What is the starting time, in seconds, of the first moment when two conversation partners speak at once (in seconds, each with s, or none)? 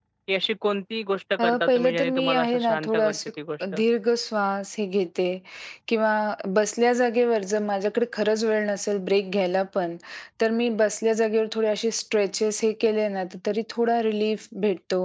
1.4 s